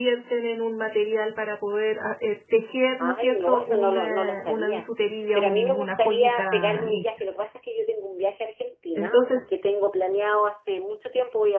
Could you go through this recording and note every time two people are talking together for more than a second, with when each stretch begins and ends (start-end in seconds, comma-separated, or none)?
3.0-4.8, 5.3-7.0